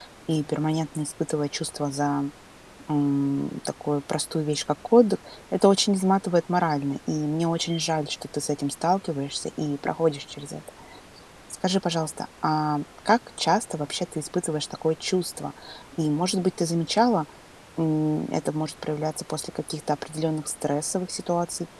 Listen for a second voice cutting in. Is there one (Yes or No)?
No